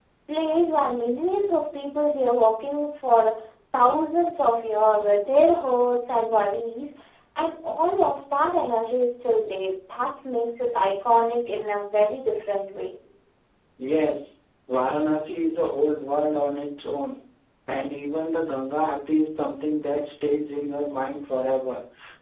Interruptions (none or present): none